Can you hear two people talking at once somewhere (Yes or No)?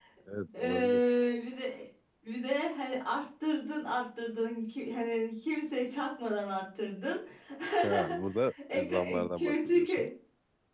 Yes